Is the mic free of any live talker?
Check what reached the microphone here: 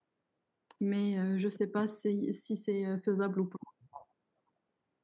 No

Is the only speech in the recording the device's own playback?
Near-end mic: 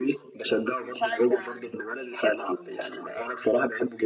Yes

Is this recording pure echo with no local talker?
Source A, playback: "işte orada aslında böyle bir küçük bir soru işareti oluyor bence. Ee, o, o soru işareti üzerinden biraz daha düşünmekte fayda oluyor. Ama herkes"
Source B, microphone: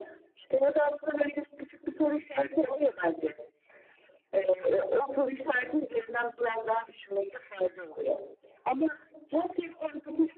Yes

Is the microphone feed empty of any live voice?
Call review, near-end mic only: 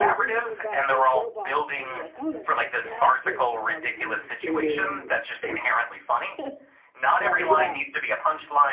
No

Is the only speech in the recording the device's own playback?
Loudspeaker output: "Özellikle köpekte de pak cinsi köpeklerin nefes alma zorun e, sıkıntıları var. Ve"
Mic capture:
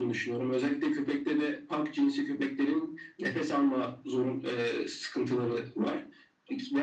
Yes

